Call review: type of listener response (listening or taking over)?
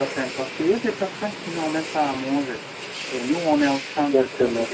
listening